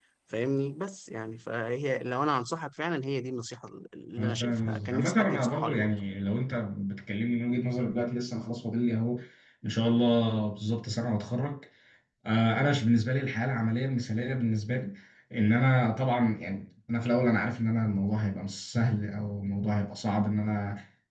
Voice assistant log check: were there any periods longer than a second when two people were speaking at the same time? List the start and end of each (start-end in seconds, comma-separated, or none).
4.2-5.9